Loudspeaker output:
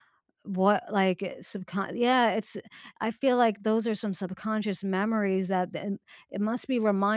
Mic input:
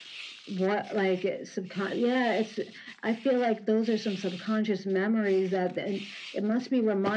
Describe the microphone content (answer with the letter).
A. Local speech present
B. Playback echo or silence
B